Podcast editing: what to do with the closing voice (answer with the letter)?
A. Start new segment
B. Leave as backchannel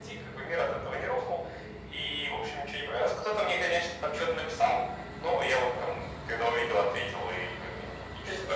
A